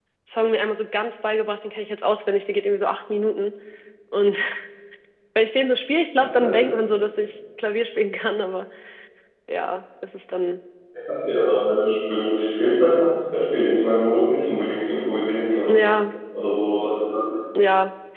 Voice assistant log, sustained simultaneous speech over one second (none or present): none